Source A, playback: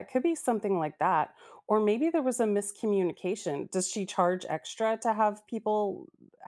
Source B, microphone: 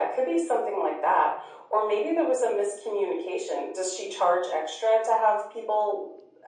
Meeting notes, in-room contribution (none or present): none